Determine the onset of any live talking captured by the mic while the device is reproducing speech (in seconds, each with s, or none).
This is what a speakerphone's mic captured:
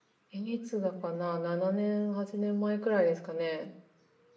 0.3 s